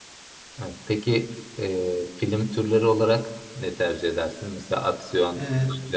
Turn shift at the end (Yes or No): No